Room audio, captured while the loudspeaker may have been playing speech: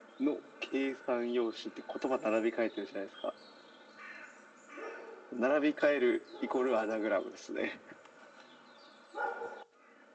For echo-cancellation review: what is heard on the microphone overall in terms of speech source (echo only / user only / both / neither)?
echo only